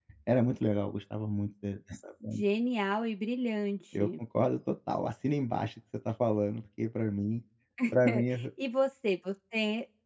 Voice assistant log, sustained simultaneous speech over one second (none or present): none